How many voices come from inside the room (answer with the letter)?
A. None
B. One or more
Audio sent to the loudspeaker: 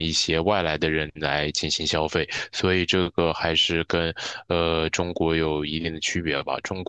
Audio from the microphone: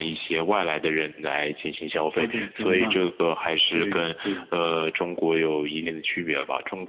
B